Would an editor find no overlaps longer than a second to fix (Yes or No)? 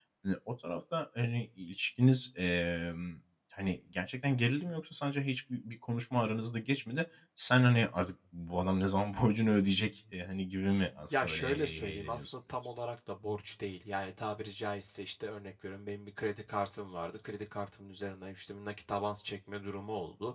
No